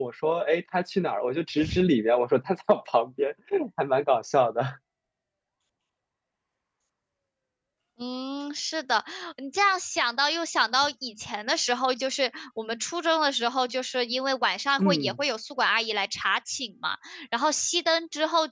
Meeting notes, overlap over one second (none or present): none